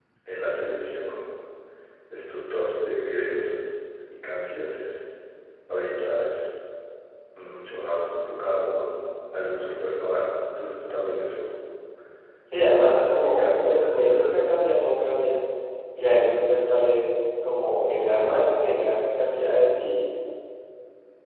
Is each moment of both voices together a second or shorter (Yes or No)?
No